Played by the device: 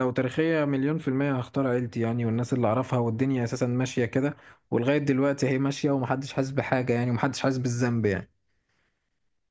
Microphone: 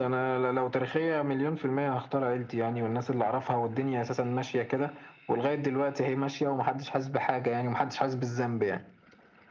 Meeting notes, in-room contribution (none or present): none